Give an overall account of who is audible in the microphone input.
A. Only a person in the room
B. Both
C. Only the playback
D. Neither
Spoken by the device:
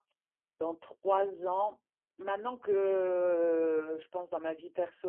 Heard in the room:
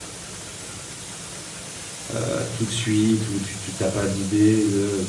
A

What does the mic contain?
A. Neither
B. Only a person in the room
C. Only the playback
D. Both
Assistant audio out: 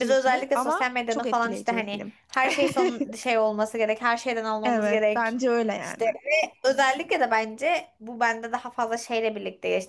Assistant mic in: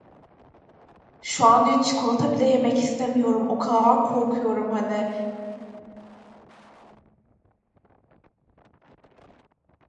B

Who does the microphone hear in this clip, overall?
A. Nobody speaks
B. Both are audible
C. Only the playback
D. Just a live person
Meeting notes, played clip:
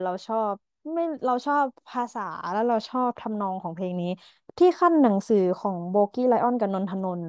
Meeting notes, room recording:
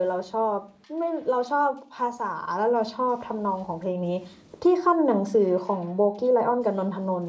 C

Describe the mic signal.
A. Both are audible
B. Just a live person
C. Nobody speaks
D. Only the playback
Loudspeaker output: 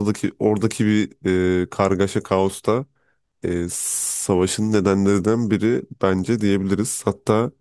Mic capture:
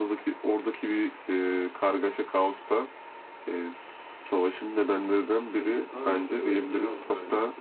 A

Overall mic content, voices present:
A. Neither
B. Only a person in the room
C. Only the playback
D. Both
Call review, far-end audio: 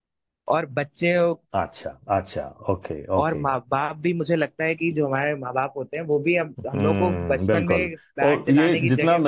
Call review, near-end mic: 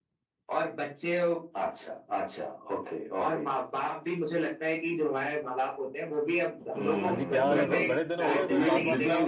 D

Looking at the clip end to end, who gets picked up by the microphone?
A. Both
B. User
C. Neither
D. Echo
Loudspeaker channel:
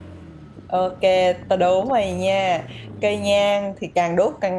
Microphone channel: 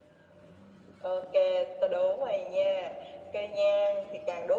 D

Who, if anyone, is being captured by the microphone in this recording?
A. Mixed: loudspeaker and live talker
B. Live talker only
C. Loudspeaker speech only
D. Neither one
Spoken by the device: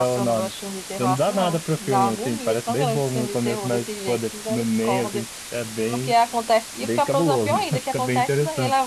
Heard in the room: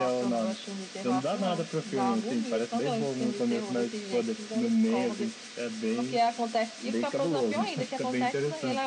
C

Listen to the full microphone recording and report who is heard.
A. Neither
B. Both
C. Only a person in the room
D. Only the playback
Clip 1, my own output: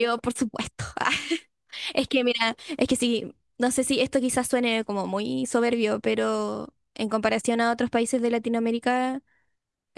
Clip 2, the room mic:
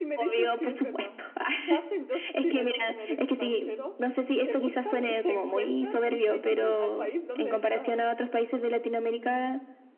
B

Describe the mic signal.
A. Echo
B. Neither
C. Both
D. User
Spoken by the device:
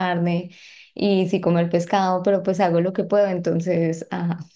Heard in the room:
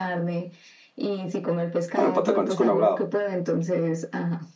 C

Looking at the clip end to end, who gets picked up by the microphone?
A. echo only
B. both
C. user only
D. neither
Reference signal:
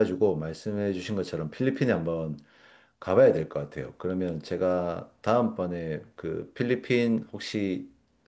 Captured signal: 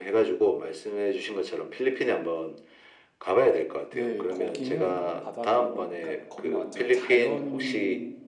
B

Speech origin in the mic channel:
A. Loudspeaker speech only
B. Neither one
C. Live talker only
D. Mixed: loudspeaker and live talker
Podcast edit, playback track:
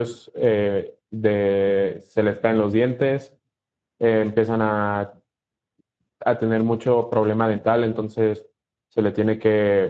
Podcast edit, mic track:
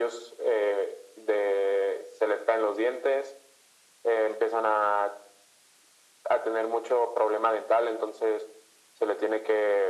A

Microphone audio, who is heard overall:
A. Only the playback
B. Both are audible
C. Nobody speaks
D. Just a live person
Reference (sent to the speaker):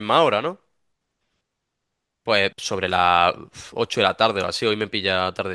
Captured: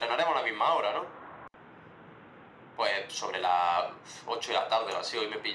A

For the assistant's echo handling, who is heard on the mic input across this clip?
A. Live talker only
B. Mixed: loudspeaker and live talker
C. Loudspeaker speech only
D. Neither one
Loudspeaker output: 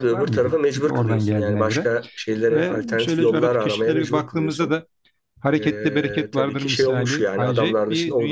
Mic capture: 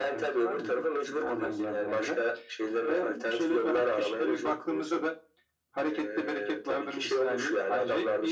C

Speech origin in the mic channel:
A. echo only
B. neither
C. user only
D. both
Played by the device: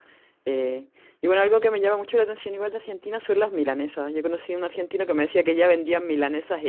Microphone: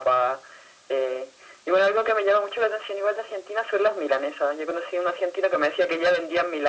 A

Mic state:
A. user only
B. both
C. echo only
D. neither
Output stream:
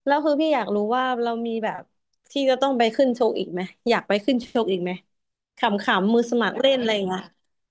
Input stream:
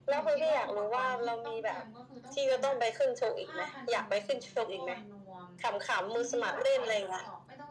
B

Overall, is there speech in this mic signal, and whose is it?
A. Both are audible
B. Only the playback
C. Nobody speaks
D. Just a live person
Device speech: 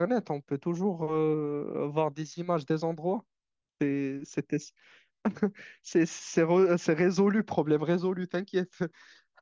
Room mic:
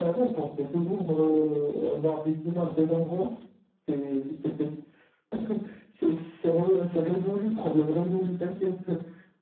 B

